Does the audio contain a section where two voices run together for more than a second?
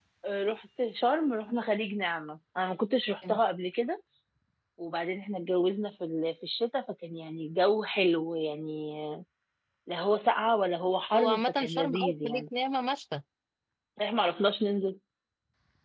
Yes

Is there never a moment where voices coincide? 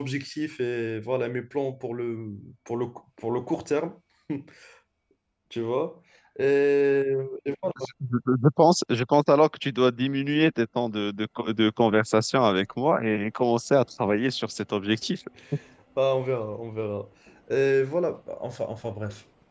Yes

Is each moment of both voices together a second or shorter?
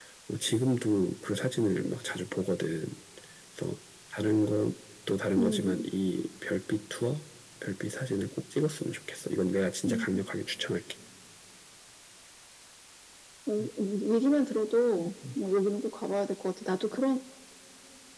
Yes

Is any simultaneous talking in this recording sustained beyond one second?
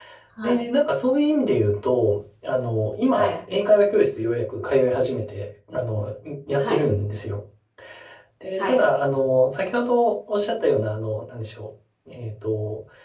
No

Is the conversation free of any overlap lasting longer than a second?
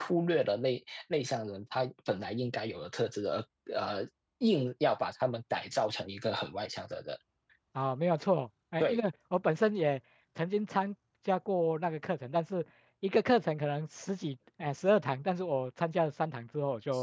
Yes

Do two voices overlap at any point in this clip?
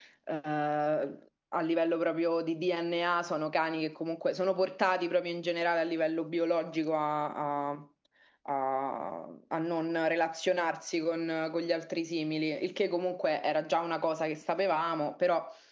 No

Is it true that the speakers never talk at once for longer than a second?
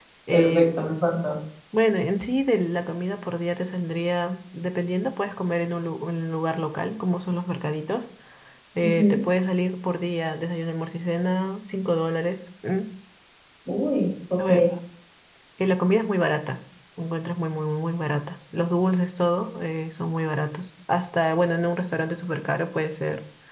Yes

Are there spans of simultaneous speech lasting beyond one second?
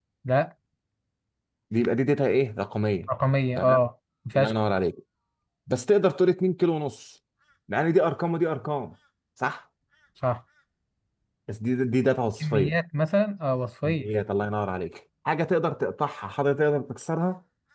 No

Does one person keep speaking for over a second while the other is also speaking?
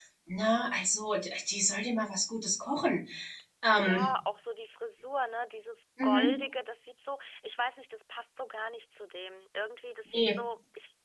No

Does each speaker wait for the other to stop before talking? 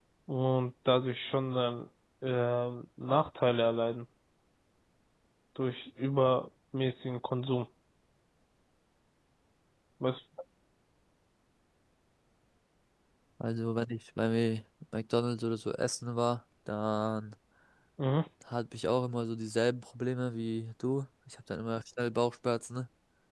Yes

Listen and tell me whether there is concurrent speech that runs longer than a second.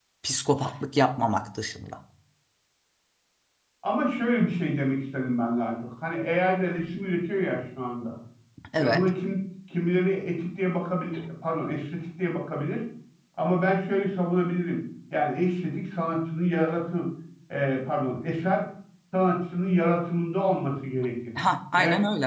No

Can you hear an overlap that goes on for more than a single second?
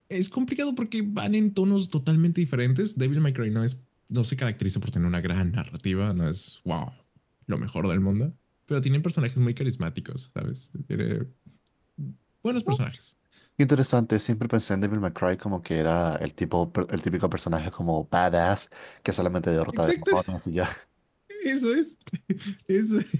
No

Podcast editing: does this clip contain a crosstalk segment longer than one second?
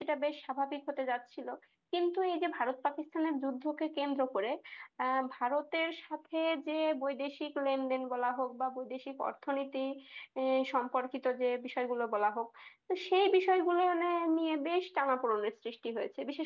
No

